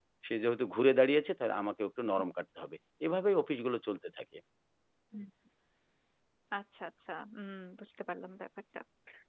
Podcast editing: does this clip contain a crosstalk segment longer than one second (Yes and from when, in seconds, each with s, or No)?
No